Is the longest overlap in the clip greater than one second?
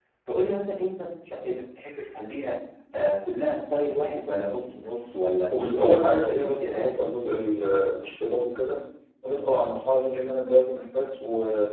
Yes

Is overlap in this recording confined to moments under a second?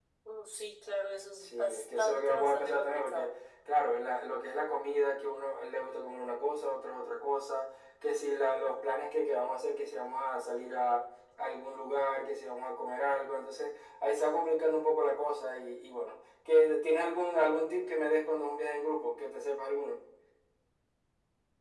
No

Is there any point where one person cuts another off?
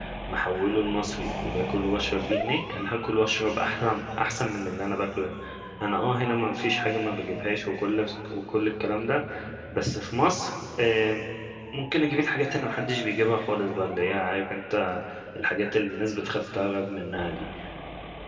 No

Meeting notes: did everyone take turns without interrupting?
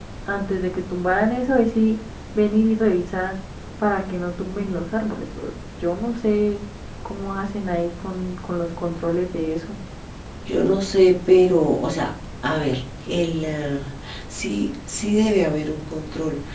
Yes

